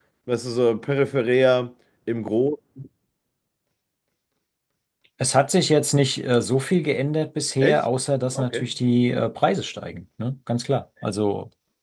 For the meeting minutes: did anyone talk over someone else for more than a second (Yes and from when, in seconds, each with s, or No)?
No